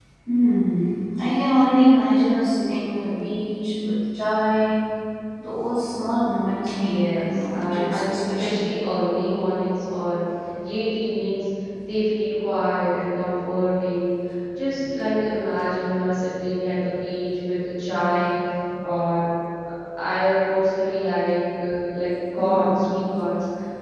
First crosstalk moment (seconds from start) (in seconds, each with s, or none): 6.8 s